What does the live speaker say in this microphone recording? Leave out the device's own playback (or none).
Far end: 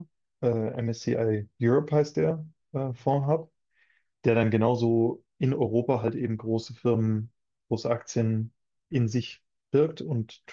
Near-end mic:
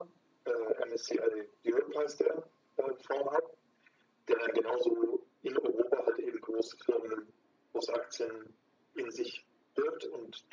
none